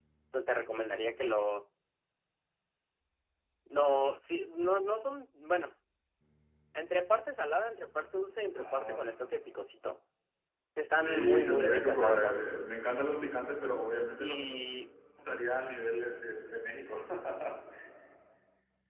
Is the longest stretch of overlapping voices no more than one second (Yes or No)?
No